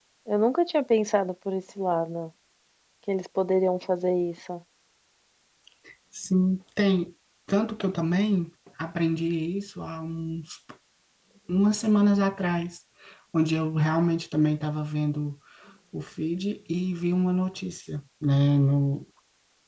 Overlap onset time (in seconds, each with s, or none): none